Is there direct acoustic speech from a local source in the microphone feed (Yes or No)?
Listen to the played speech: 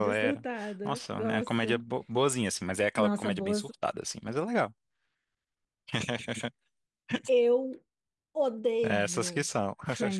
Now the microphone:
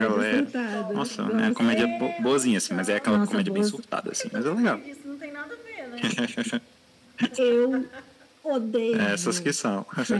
Yes